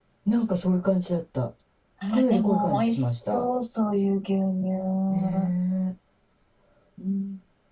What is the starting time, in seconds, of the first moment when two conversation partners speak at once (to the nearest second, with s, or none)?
2 s